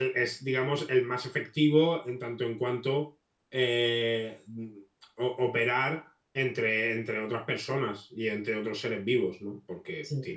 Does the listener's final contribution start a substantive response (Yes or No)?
No